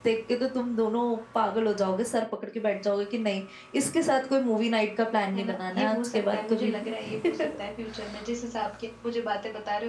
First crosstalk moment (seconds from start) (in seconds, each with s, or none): 5.3 s